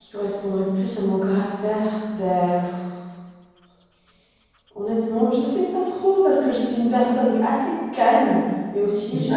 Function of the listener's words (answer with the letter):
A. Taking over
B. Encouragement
B